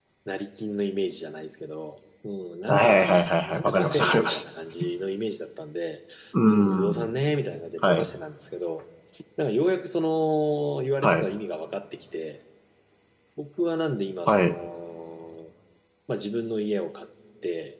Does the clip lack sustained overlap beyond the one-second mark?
No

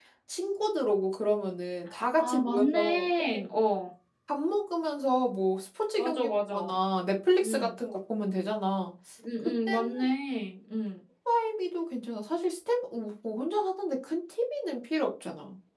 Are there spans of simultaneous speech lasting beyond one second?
Yes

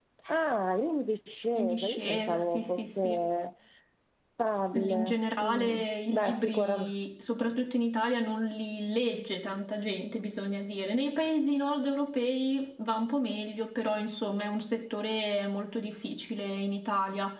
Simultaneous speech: Yes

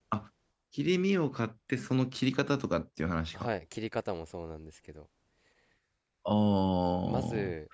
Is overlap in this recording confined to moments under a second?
Yes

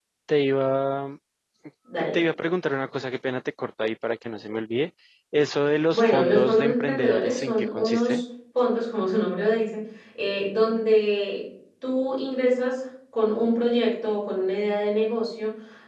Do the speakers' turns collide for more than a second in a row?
Yes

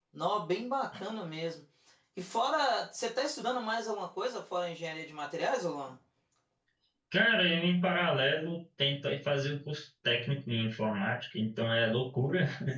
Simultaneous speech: No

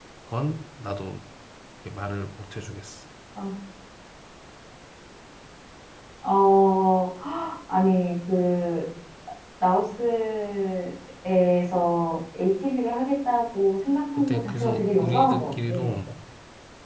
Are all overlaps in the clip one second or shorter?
No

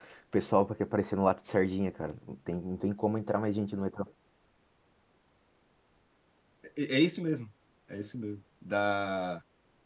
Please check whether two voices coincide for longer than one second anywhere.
No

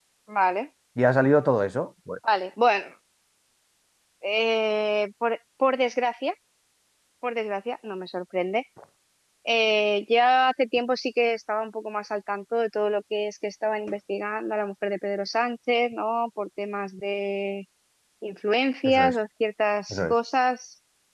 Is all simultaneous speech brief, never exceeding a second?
Yes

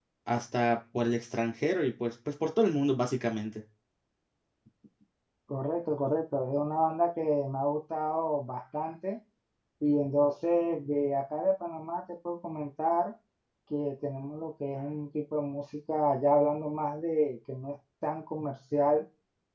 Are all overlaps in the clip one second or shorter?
Yes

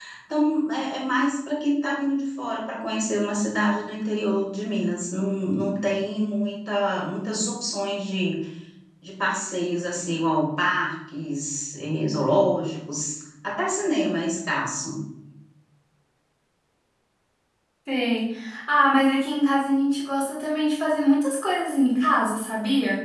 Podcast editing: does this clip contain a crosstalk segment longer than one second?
No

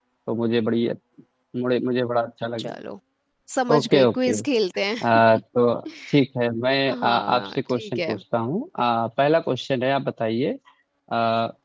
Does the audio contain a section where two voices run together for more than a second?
Yes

